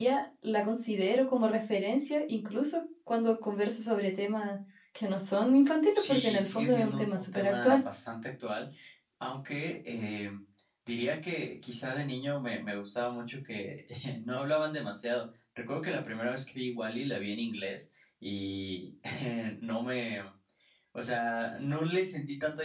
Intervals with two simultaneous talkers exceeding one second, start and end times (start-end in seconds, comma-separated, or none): 5.9-7.8